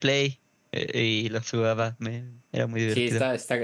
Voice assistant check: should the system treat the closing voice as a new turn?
Yes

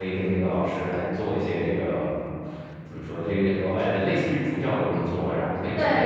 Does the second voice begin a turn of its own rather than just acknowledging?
Yes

